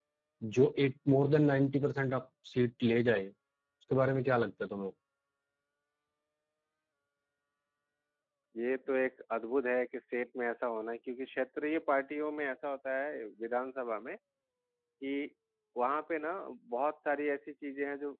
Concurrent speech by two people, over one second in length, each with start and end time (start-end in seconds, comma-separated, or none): none